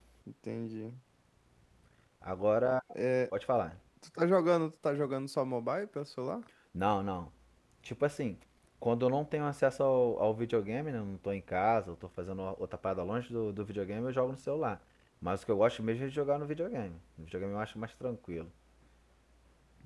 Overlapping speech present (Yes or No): No